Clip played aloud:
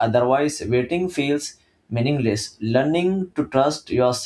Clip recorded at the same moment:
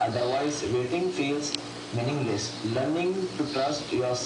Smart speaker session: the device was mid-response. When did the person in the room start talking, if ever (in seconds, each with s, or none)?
none